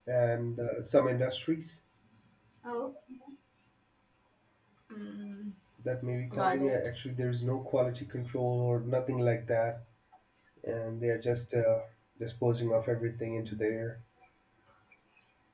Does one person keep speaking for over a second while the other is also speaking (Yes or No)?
No